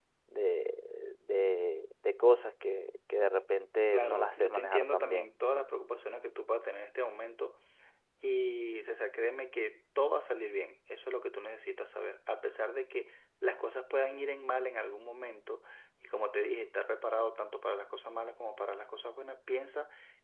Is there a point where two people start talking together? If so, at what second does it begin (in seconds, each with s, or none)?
3.9 s